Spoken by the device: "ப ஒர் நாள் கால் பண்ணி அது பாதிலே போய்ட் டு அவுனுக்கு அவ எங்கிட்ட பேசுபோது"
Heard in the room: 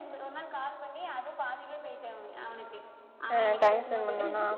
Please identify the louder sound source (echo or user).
user